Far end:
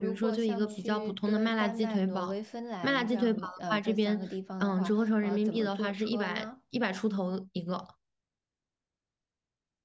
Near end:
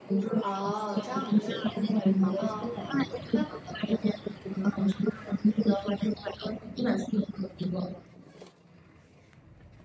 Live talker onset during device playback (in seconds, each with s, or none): 0.4 s